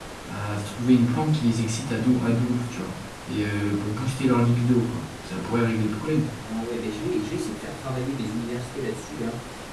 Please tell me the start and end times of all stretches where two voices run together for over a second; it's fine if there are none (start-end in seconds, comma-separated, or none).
none